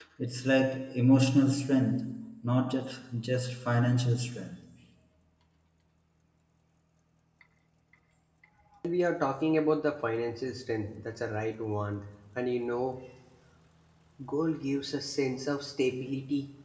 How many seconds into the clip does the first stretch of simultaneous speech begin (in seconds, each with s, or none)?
none